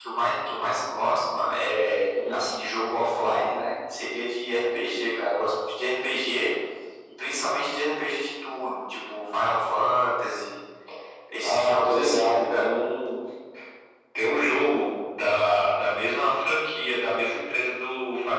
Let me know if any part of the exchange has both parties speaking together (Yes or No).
Yes